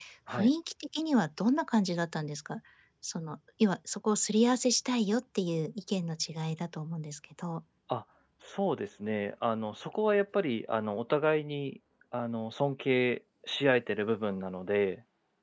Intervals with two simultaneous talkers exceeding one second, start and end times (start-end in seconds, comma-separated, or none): none